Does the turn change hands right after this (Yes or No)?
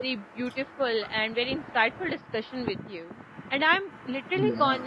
No